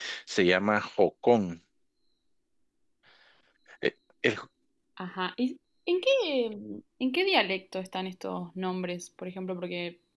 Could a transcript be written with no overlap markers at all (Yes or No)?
Yes